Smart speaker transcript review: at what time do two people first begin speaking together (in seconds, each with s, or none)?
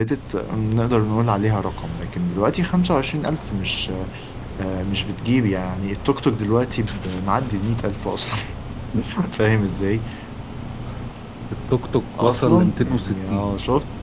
12.2 s